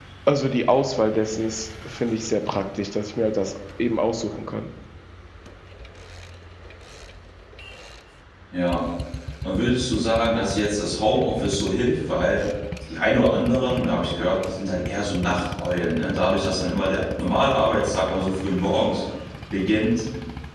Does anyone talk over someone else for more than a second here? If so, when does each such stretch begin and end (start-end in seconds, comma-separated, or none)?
none